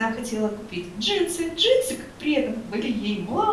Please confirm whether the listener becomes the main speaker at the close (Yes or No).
No